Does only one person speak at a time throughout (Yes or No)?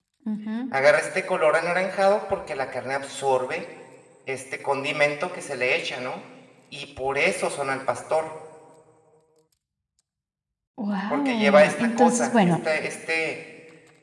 No